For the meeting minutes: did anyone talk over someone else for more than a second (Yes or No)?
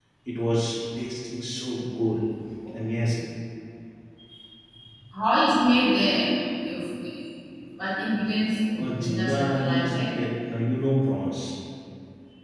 Yes